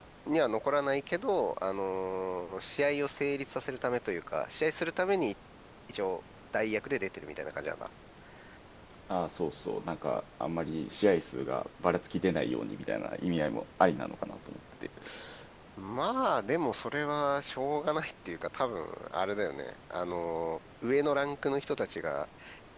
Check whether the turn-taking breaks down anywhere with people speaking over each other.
No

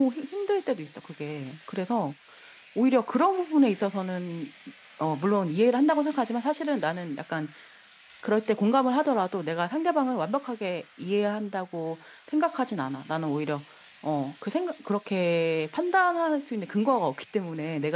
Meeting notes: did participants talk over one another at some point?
No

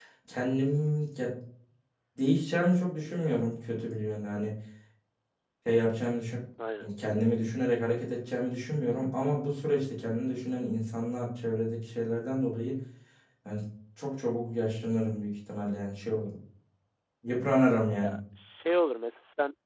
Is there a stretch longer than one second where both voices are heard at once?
No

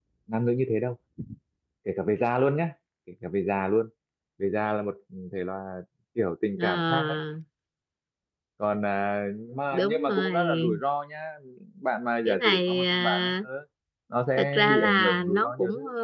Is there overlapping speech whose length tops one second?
Yes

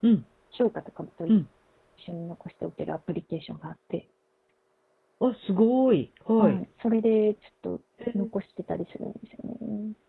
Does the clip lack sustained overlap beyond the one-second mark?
Yes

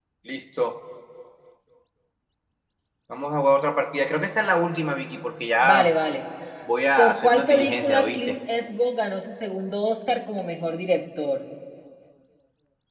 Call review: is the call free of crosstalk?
No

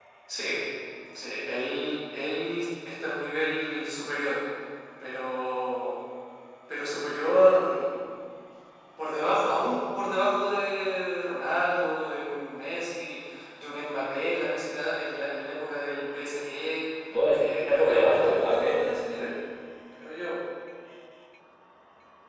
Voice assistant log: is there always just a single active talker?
No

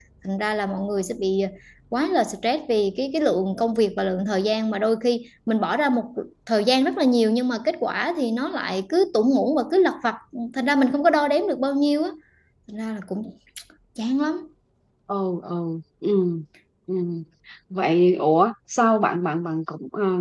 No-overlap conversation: Yes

